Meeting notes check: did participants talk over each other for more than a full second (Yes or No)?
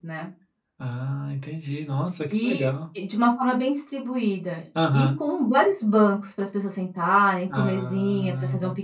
Yes